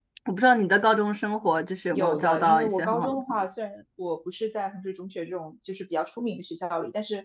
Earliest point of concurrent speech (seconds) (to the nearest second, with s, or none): 2 s